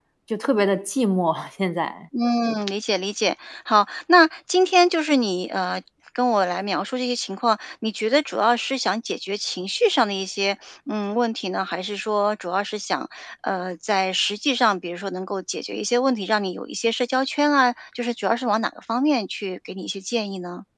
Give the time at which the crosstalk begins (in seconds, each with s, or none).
none